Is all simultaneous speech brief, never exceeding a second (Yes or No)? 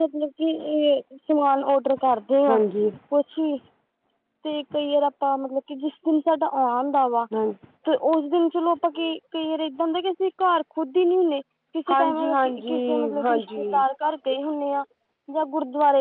No